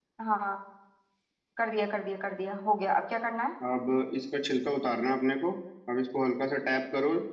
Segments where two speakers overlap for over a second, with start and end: none

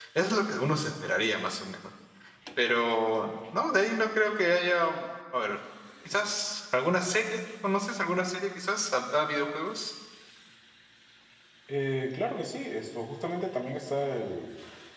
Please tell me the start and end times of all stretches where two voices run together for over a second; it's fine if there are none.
none

